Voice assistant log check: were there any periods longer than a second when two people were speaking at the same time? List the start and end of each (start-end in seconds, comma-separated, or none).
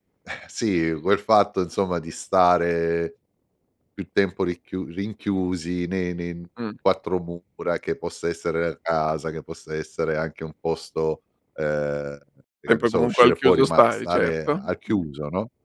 12.7-15.0